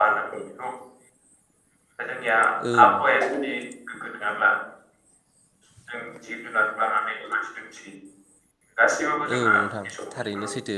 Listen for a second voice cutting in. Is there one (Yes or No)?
Yes